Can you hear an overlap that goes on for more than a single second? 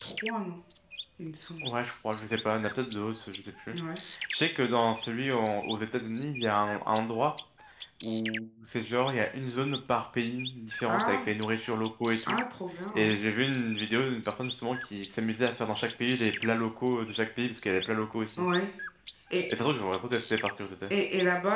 No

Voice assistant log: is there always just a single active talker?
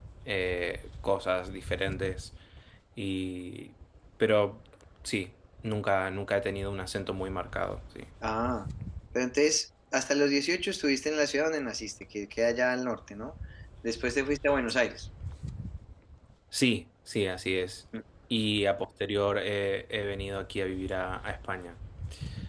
Yes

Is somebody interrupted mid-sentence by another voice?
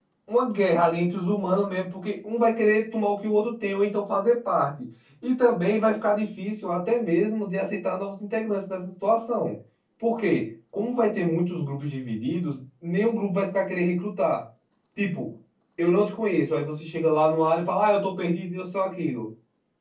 No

